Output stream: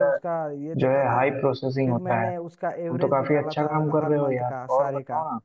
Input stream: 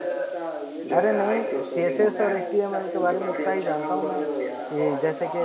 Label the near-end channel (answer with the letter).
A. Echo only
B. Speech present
B